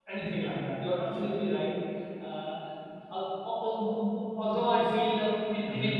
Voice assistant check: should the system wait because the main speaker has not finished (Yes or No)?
Yes